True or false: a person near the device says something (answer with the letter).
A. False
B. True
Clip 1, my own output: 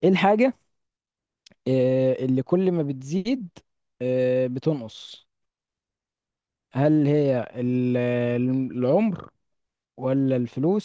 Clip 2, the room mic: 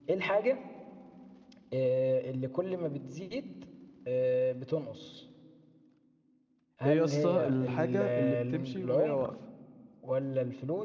B